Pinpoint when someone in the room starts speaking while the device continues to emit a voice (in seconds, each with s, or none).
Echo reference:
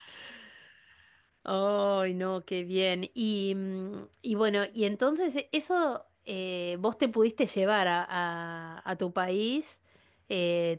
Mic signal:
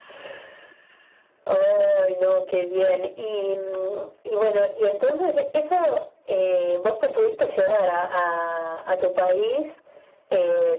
none